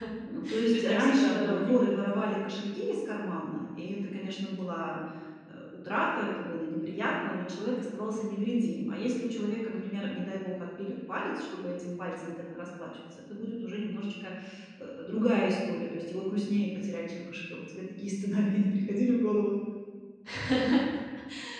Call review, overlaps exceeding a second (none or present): present